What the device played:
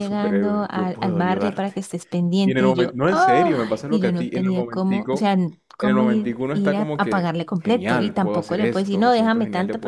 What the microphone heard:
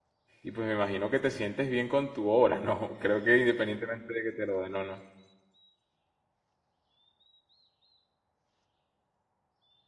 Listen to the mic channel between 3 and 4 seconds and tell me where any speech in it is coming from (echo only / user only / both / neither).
user only